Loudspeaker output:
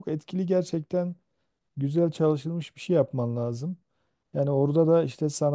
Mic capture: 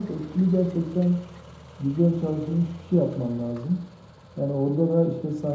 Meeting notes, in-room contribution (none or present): none